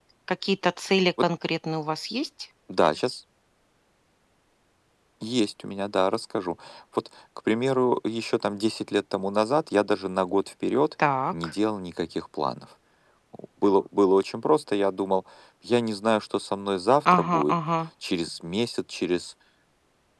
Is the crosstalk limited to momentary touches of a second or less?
Yes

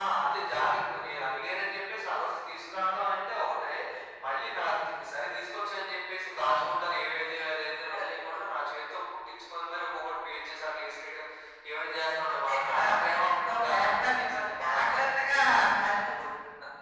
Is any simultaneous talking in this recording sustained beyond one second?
Yes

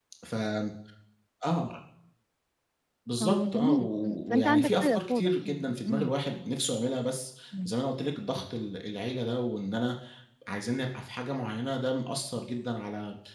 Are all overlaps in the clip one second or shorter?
No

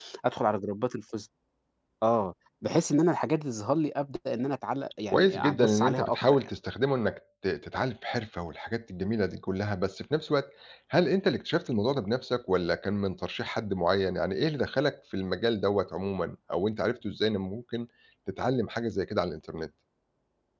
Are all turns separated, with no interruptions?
No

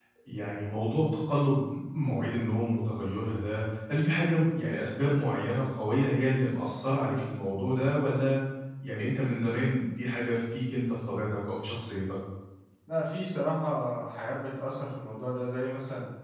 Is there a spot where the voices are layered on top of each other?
No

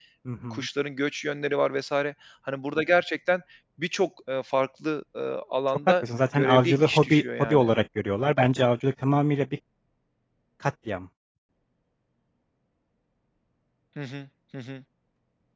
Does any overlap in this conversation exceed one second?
Yes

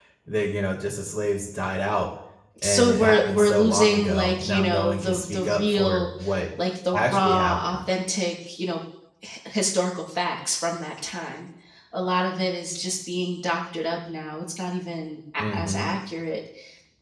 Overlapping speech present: Yes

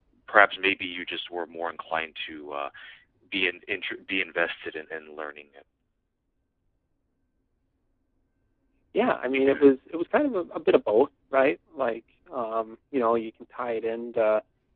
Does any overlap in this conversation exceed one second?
No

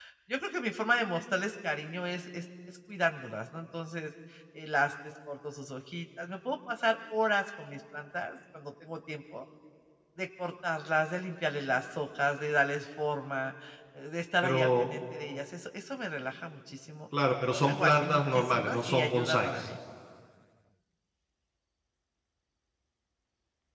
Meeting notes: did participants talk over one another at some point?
Yes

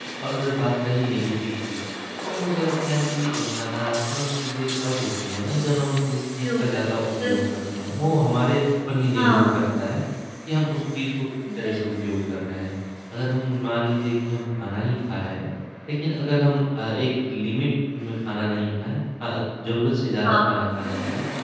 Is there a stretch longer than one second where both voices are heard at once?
No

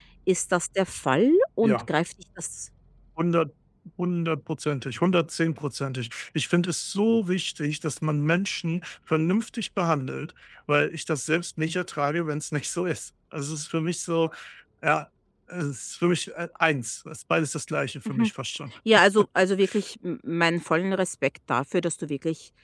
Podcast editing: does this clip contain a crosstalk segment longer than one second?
No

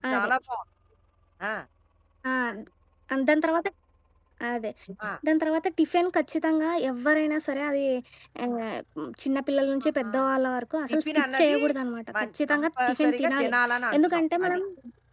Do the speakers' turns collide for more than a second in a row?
Yes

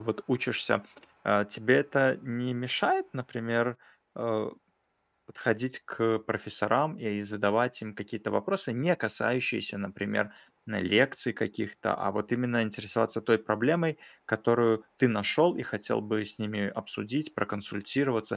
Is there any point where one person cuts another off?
No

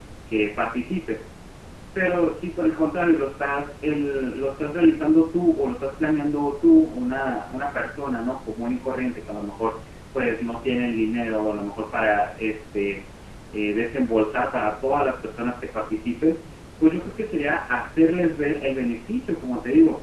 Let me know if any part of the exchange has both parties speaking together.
No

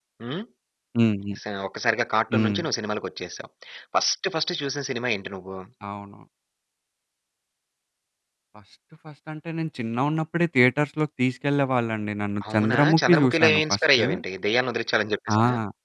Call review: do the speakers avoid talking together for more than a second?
No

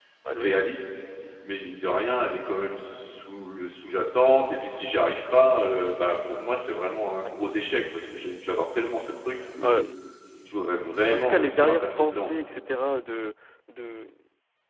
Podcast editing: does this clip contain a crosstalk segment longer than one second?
Yes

